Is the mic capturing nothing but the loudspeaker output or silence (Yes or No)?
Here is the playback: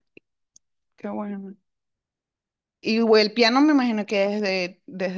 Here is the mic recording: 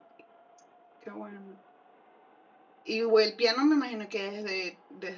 Yes